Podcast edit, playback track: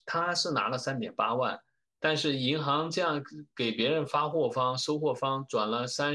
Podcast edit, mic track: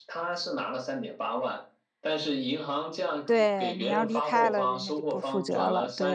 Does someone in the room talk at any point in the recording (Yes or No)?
Yes